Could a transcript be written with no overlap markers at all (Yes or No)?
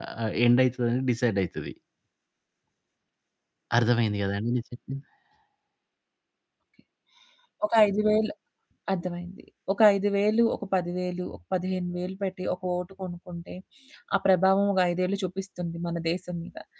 Yes